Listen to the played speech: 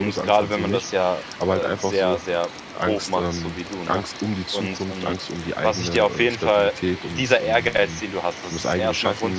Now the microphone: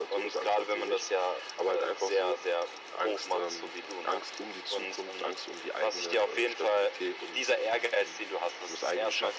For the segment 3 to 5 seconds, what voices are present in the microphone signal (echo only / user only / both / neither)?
echo only